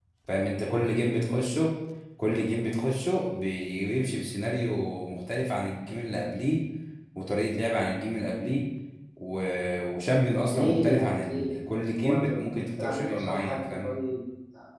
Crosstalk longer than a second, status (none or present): present